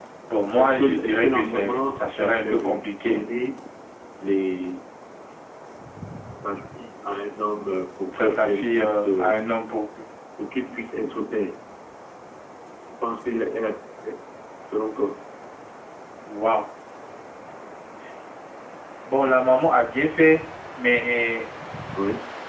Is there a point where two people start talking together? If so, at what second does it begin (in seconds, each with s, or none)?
0.6 s